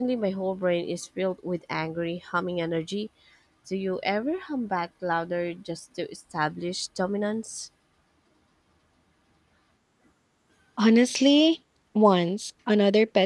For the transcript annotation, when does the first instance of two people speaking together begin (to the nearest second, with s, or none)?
none